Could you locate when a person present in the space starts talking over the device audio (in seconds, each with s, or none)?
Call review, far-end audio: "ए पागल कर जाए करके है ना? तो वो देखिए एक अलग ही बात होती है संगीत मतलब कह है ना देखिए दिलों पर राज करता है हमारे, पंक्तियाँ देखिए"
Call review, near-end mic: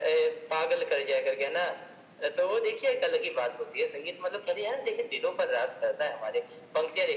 none